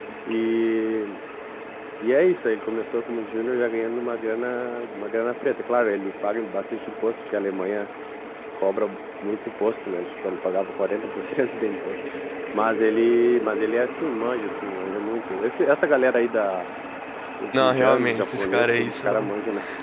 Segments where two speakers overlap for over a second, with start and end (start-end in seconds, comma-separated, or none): 17.5-19.3